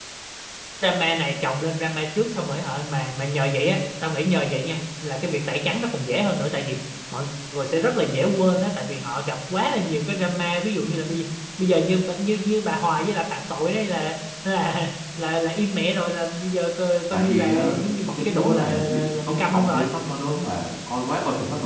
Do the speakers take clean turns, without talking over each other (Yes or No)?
No